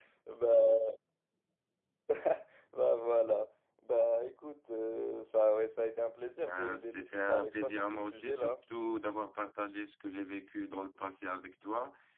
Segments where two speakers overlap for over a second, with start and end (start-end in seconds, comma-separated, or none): 6.4-8.5